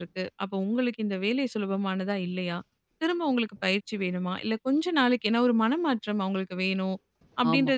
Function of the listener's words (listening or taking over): listening